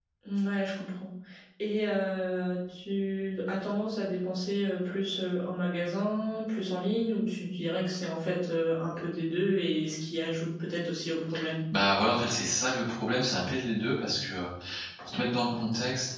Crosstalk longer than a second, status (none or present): none